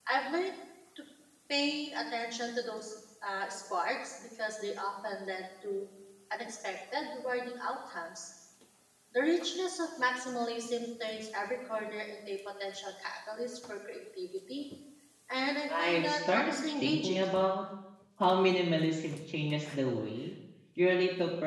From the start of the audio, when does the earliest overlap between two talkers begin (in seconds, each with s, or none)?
15.8 s